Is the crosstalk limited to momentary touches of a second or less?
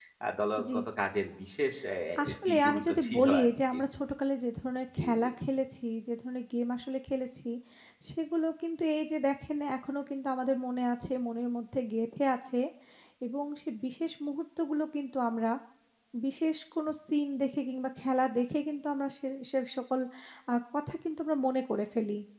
No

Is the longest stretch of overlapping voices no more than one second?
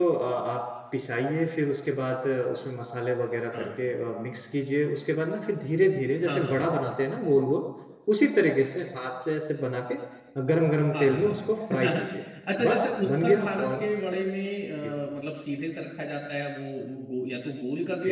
No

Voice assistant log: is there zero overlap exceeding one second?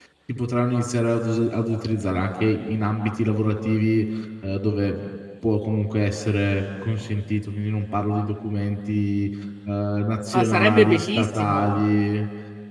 No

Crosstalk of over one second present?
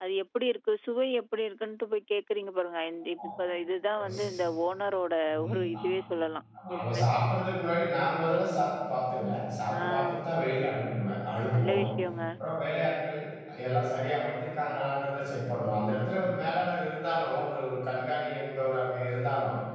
No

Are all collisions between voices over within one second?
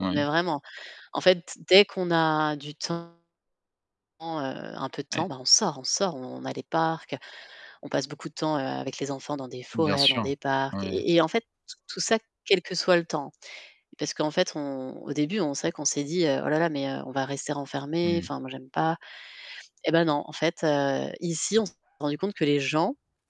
Yes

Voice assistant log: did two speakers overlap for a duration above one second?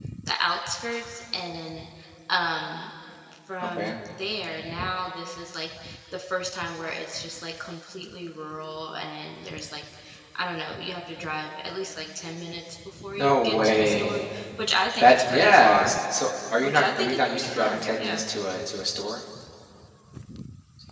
Yes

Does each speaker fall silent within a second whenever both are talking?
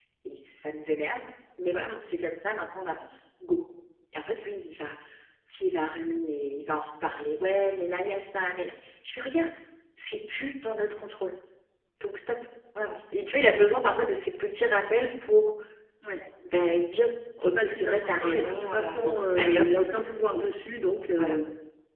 No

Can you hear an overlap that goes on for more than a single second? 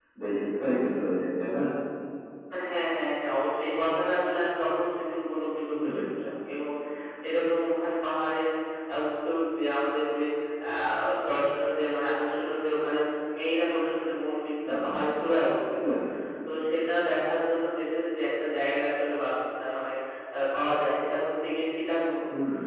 No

